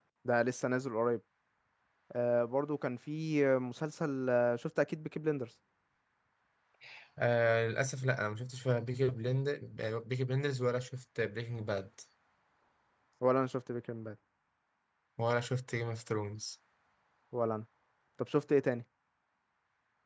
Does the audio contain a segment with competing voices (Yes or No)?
No